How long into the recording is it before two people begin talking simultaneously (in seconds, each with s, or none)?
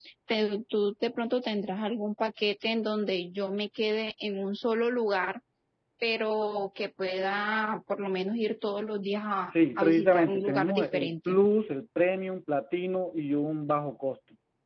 9.5 s